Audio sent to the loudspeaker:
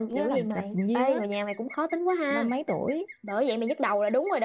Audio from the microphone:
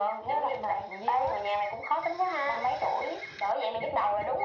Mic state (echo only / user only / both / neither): echo only